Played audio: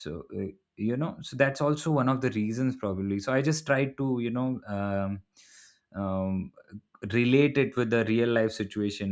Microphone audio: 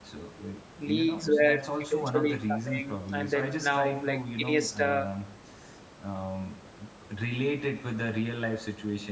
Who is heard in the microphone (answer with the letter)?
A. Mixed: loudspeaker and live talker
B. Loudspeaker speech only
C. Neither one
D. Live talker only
A